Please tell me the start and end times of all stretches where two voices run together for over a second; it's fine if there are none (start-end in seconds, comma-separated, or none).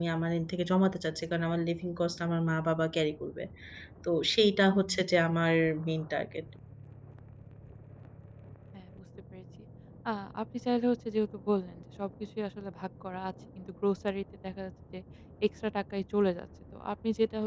none